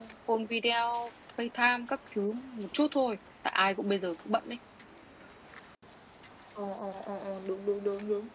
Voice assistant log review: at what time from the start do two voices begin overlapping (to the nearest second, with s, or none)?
none